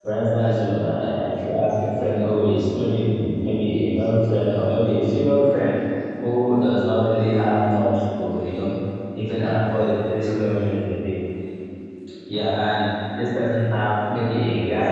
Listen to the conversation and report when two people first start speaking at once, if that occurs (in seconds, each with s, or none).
none